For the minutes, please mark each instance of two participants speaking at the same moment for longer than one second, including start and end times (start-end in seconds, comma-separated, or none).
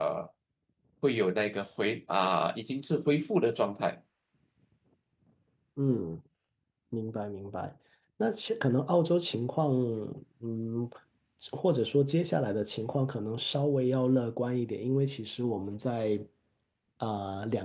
none